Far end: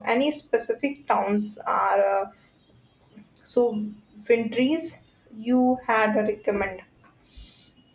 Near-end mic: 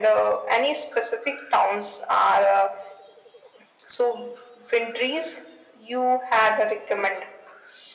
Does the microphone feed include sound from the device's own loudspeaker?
Yes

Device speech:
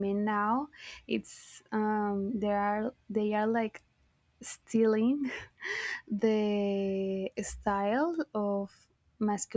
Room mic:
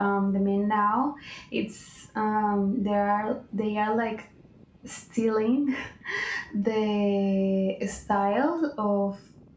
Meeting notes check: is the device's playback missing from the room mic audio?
No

